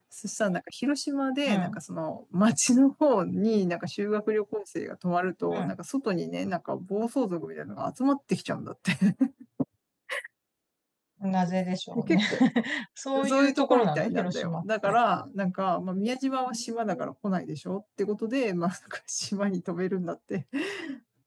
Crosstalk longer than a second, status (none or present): present